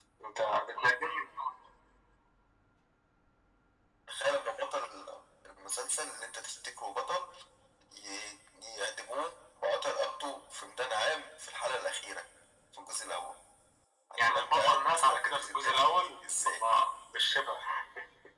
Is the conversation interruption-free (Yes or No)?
No